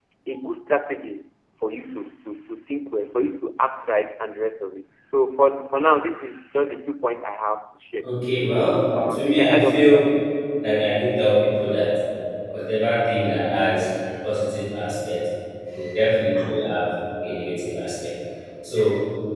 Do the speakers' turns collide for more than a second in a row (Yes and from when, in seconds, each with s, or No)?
Yes, from 8.6 s